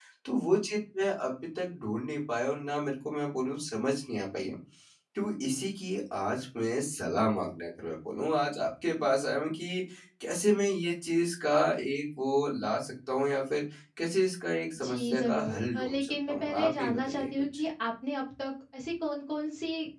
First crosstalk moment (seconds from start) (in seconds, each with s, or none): 14.8 s